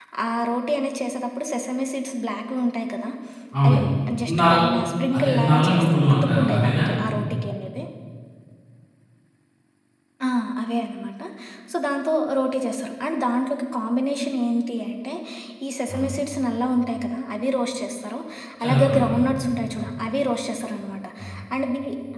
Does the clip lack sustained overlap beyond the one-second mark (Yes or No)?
No